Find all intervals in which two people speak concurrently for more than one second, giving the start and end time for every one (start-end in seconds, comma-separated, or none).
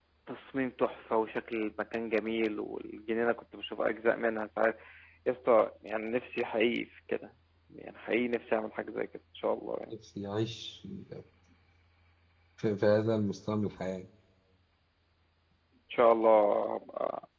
none